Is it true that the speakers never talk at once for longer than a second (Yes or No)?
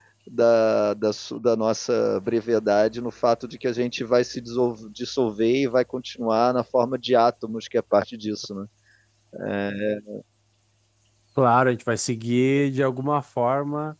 Yes